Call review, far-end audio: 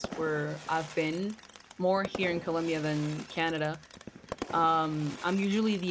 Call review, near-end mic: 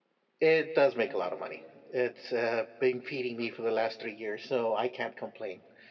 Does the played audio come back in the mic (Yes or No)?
No